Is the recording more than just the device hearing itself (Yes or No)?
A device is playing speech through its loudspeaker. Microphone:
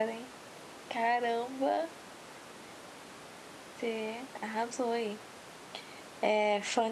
Yes